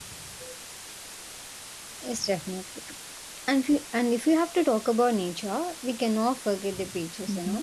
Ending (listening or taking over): listening